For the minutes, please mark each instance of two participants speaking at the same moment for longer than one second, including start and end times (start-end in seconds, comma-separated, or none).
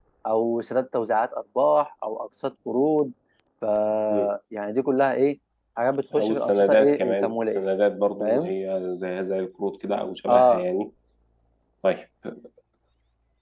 6.2-7.6